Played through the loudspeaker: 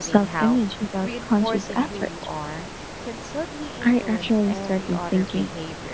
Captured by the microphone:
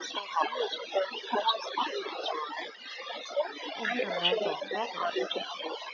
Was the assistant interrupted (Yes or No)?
Yes